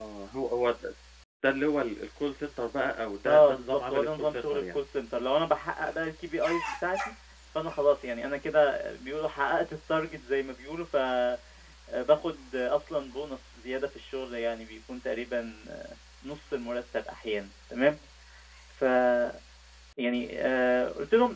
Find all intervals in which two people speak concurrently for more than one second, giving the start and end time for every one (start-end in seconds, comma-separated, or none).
3.3-4.8